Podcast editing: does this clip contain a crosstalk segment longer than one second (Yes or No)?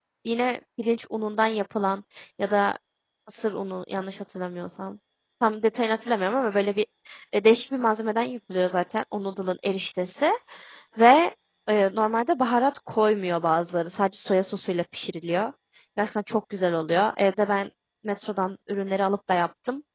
No